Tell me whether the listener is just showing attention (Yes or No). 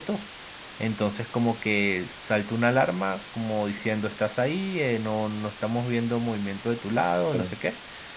Yes